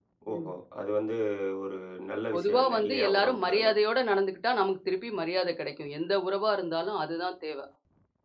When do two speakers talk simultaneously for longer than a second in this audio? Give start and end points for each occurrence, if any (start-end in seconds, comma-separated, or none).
2.3-3.7